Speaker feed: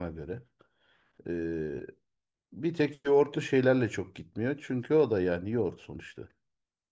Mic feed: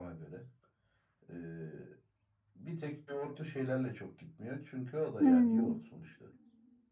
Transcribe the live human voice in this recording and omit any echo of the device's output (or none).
Hmm.